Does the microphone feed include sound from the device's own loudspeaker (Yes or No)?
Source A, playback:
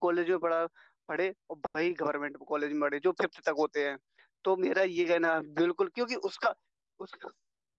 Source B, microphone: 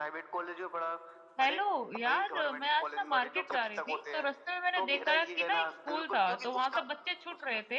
Yes